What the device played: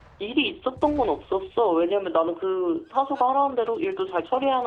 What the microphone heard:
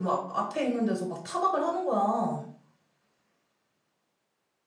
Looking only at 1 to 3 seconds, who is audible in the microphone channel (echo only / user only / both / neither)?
user only